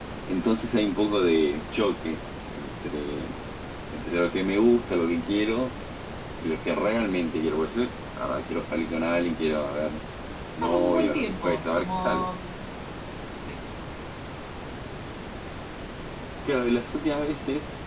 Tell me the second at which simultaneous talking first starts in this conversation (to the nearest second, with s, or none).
11 s